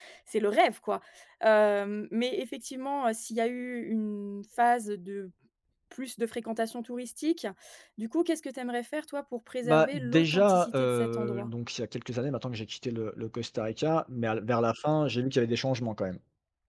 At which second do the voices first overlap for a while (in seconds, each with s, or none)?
9.6 s